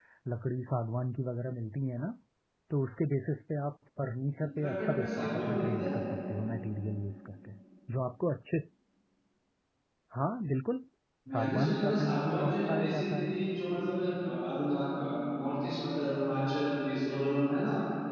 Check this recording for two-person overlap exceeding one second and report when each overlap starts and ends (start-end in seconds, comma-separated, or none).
4.6-6.0, 11.3-13.3